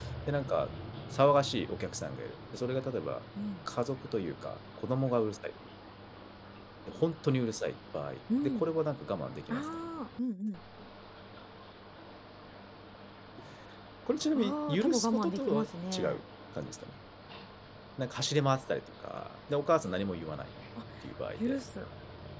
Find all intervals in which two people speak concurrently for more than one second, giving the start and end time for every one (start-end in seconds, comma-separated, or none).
14.4-16.2